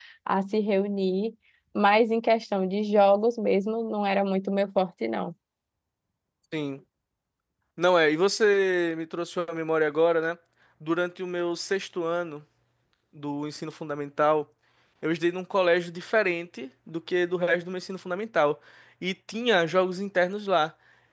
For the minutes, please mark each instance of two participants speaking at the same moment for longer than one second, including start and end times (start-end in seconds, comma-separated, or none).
none